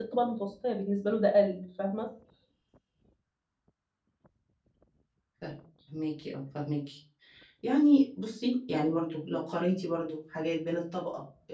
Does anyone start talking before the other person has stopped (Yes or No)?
No